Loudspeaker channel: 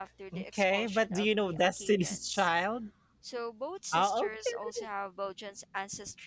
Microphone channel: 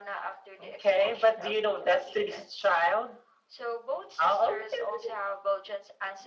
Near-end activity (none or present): none